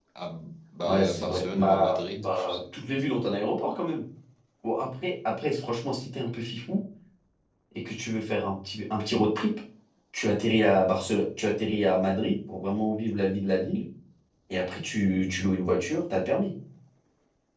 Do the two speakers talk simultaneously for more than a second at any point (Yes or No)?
Yes